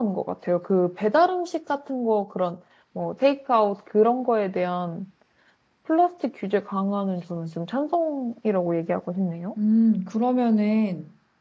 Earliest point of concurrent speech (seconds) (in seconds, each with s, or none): none